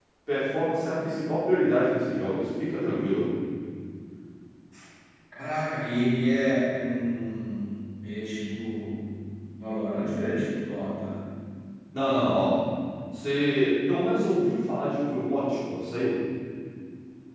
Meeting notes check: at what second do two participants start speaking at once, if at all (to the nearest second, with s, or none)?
none